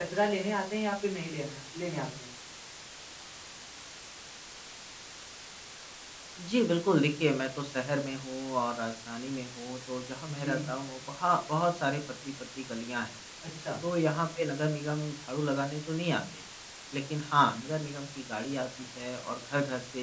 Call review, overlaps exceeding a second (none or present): none